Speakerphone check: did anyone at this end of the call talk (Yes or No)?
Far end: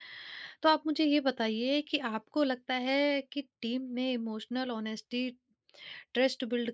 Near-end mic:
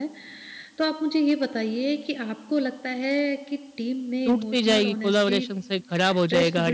Yes